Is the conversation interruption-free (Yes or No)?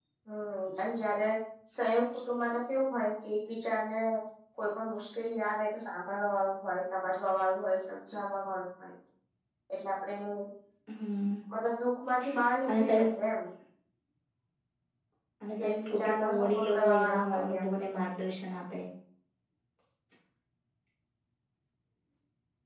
No